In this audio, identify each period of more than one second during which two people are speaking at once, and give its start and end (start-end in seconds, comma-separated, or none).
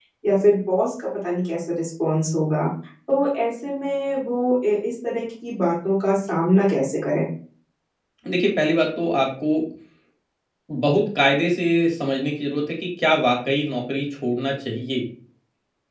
none